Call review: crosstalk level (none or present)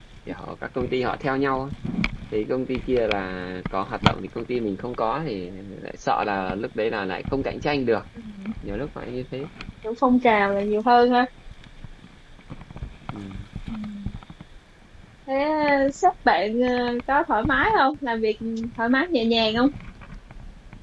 none